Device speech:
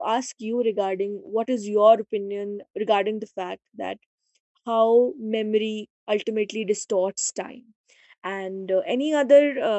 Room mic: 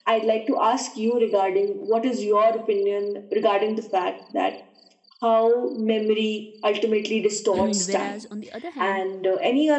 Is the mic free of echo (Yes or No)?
No